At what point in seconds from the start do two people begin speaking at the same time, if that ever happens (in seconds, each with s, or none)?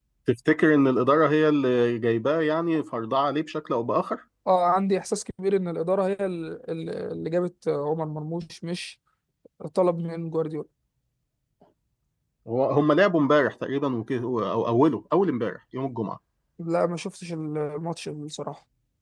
none